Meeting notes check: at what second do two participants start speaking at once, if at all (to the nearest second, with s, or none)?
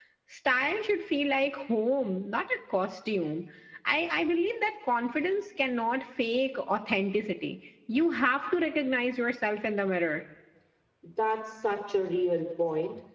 none